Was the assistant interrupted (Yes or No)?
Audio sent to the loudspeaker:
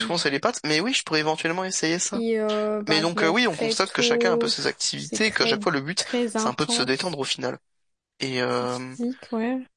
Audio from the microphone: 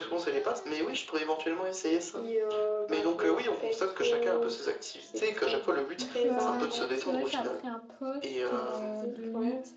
Yes